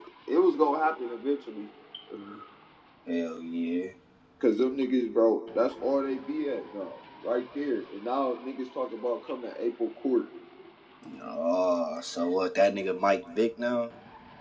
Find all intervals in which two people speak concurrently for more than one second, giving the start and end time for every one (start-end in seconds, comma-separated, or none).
none